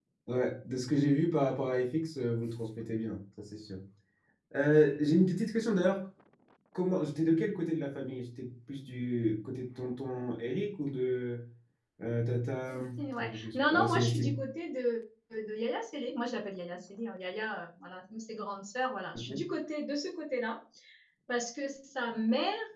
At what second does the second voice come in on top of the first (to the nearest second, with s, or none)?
13 s